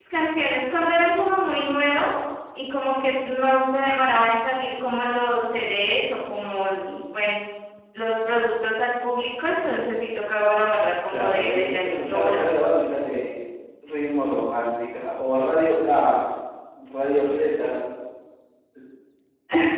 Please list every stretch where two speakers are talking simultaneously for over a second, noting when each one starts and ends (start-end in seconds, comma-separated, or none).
11.1-12.4